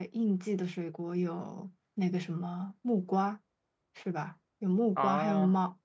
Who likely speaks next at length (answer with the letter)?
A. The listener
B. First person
B